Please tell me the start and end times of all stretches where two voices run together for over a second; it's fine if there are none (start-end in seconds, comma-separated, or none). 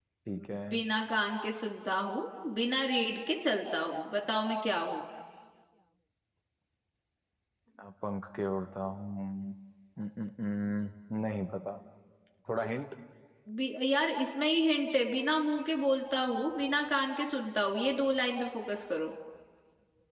none